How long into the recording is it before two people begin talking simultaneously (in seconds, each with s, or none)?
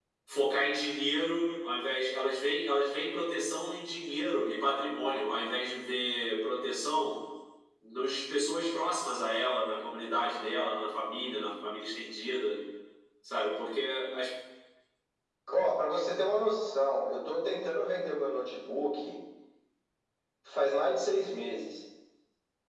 none